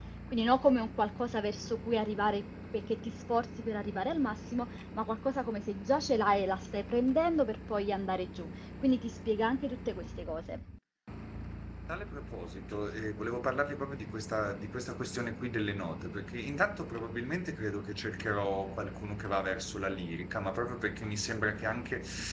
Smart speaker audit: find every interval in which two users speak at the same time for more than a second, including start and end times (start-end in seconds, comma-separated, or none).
none